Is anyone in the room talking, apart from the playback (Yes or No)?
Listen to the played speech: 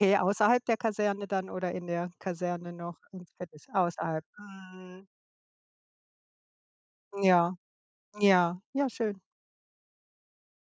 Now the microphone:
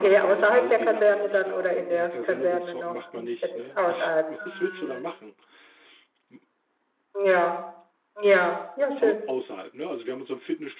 Yes